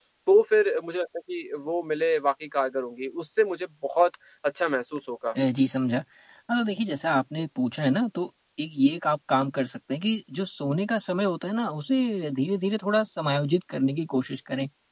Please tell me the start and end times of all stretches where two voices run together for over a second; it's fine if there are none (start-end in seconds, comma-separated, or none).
none